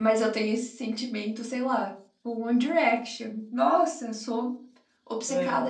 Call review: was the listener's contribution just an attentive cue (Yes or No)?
Yes